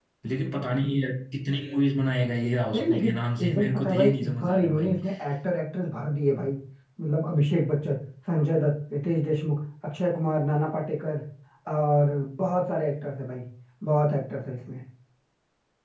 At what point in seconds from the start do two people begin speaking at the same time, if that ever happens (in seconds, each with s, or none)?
2.7 s